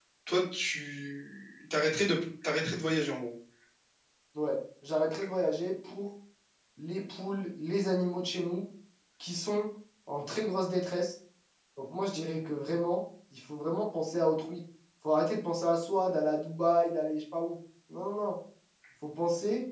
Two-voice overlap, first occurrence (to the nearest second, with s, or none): none